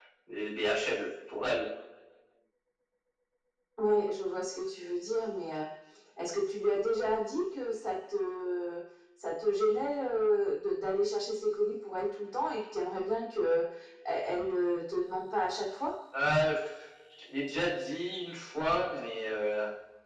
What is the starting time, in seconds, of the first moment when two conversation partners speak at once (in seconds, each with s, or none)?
none